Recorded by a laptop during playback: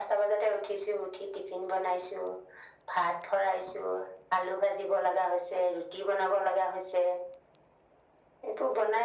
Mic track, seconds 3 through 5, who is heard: echo only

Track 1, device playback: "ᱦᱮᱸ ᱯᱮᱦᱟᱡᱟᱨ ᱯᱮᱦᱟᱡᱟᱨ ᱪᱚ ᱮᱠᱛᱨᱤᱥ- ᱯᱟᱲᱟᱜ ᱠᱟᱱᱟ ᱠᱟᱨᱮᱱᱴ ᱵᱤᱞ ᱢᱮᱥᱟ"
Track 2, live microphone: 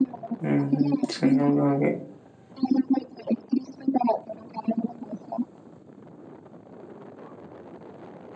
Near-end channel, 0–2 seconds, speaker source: both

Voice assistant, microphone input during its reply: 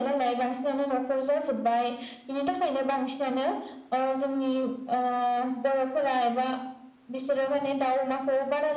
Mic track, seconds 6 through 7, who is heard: echo only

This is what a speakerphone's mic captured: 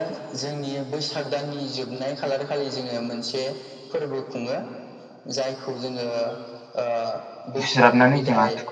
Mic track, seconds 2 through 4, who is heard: echo only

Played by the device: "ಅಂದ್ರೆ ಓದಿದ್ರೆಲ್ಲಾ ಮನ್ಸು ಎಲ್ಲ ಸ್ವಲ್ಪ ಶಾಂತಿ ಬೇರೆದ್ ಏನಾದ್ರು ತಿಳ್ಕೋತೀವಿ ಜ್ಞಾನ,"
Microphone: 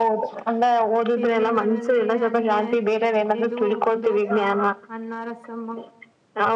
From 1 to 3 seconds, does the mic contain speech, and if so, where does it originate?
both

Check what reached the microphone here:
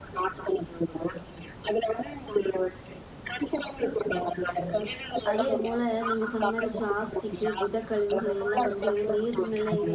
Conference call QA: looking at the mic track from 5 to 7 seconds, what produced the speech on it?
both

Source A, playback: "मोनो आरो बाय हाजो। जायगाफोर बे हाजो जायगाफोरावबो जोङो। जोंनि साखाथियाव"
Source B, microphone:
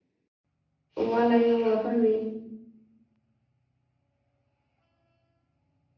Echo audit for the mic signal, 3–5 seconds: neither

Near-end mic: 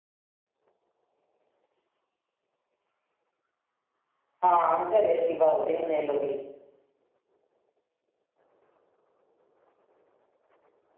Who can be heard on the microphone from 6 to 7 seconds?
user only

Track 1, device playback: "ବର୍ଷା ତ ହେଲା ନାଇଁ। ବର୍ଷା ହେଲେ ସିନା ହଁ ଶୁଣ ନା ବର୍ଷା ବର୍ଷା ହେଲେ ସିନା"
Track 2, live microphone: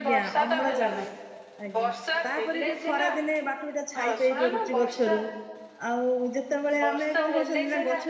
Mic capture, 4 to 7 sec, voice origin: both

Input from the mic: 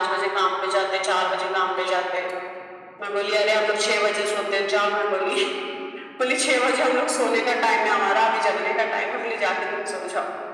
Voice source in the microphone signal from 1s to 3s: echo only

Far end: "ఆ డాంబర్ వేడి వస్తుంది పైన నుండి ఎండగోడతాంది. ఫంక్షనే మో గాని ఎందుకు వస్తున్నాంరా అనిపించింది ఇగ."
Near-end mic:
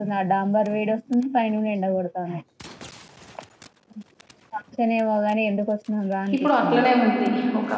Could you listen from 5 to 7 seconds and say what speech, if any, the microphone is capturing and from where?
both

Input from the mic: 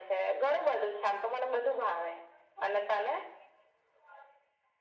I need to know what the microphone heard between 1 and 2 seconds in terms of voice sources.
echo only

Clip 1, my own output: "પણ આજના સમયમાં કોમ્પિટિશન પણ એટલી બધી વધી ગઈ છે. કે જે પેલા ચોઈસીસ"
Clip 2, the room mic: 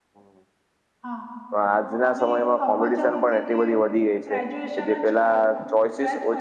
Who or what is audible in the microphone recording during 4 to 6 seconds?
both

